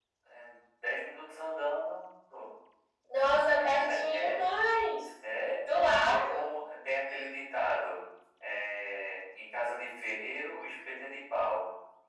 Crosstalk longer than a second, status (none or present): none